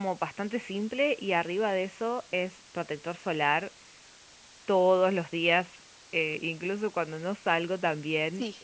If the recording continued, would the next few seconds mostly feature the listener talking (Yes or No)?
No